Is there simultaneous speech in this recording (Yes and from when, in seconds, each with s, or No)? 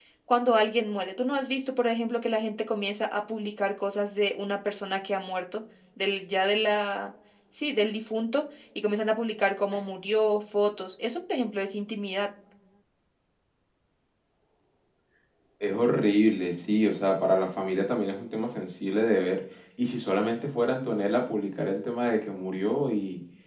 No